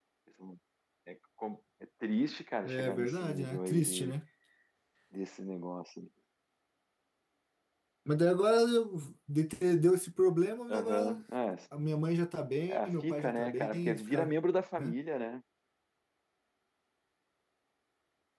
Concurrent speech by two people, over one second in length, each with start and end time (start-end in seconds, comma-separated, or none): 2.6-4.1, 12.7-14.3